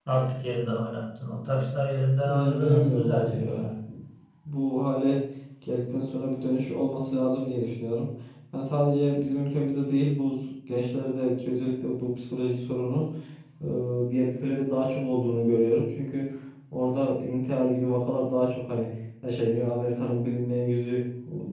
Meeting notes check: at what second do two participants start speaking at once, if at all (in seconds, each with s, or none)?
2.2 s